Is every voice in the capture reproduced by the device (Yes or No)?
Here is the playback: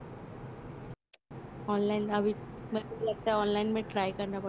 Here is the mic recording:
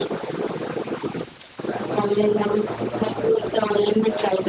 No